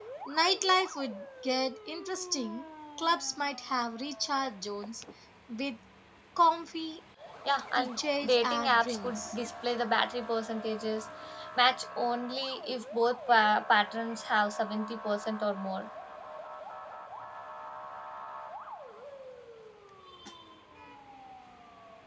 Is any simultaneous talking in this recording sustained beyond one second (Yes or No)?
Yes